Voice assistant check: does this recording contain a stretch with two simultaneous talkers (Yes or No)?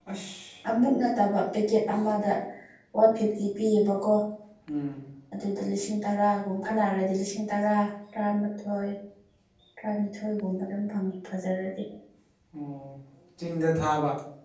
No